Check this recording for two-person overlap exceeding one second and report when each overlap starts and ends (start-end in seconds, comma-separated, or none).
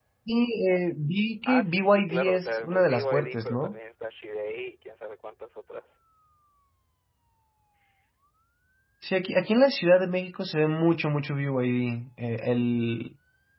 1.4-3.8